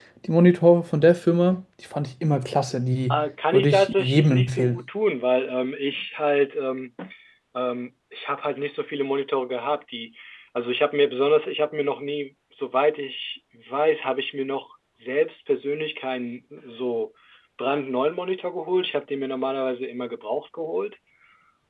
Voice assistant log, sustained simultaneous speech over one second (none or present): present